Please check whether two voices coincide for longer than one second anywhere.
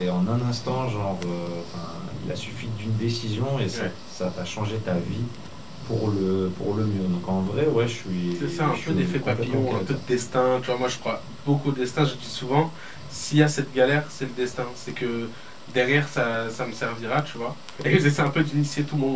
Yes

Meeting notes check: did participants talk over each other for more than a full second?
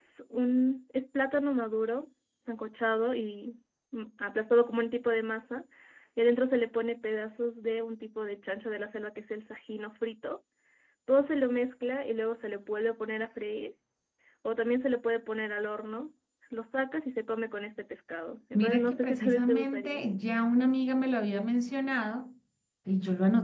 Yes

